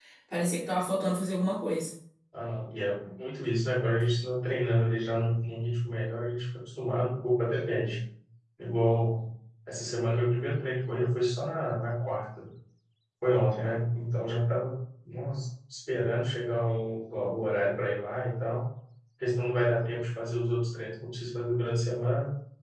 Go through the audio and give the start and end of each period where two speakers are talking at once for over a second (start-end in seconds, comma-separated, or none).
none